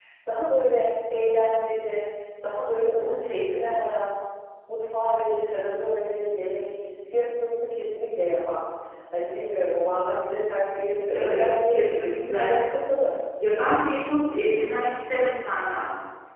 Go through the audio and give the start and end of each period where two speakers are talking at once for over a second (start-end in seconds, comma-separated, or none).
11.1-12.5